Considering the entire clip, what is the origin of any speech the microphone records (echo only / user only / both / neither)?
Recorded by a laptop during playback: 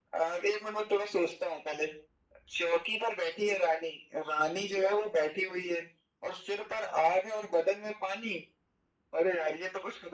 echo only